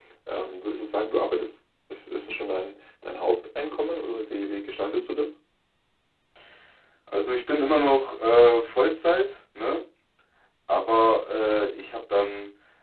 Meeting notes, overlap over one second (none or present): none